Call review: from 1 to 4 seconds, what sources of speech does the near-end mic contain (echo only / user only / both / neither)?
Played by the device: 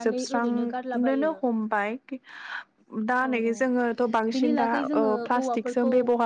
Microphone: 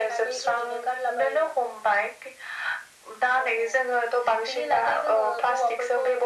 echo only